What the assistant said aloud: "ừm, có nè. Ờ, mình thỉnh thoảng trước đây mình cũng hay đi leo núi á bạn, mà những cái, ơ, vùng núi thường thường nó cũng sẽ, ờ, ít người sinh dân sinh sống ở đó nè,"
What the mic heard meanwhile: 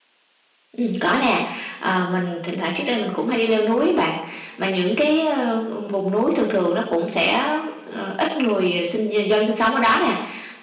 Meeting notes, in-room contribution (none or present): none